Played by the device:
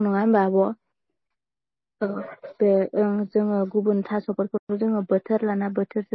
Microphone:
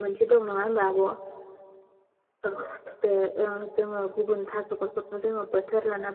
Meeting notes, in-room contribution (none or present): none